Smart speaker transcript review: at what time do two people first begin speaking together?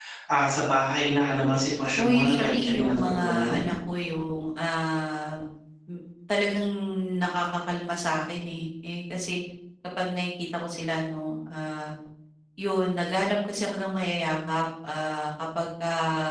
2.0 s

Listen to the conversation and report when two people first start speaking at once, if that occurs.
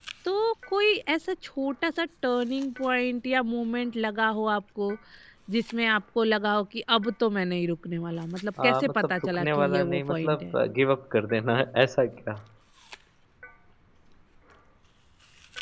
8.6 s

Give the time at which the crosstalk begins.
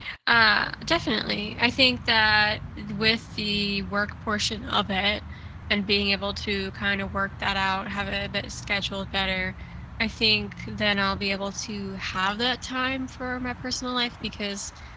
none

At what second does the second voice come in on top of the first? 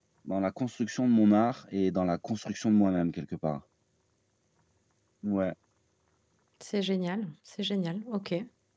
none

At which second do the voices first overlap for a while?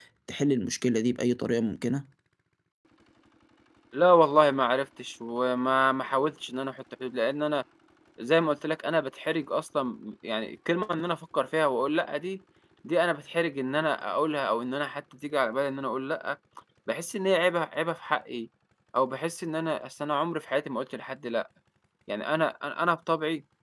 none

